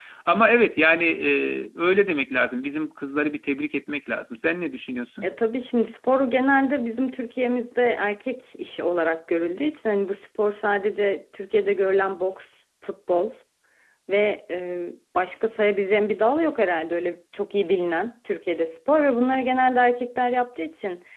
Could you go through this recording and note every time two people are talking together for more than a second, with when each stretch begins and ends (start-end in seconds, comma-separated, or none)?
none